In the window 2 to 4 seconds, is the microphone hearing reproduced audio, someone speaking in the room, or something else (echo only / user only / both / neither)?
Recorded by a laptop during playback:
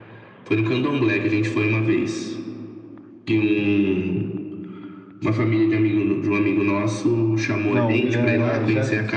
echo only